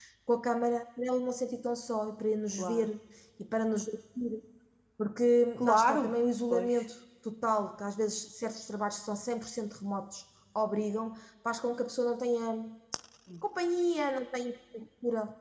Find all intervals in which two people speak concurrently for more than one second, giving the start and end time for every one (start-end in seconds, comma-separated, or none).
none